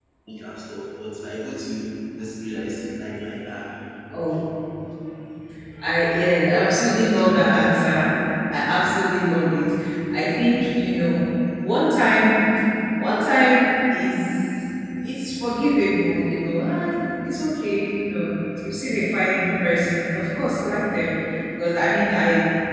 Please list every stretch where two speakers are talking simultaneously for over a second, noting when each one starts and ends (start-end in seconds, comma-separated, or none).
6.5-7.8